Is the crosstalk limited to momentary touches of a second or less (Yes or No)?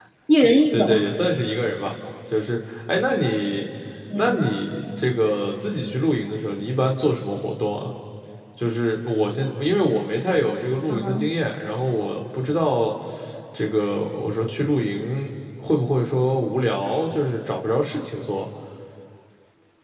Yes